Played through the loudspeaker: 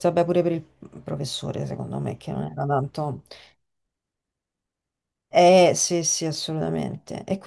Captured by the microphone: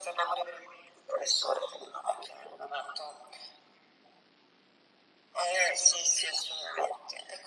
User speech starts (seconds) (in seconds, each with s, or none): none